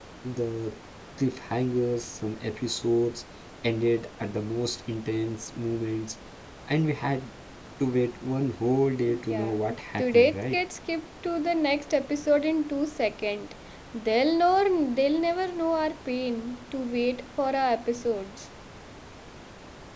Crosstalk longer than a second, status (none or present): present